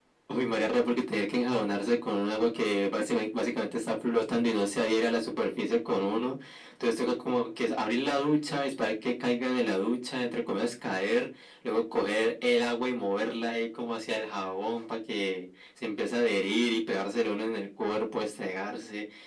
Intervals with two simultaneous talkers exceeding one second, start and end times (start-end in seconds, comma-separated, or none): none